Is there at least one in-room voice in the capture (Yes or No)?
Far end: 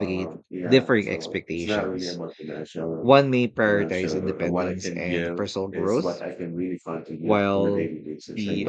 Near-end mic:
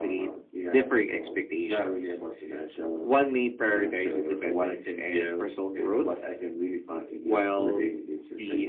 No